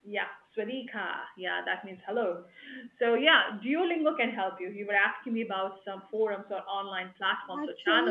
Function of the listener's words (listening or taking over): taking over